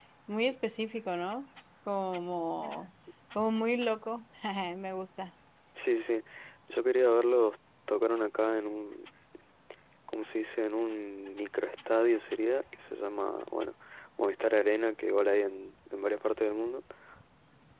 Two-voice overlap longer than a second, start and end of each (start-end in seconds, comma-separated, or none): none